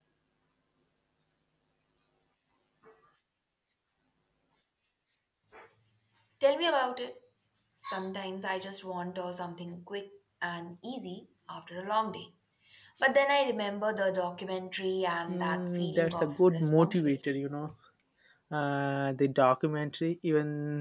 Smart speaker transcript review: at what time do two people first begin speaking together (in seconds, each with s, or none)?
15.3 s